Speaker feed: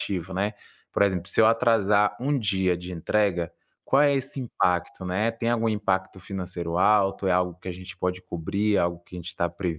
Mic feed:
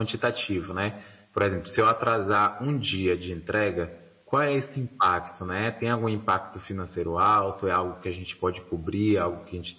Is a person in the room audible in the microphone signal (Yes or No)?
No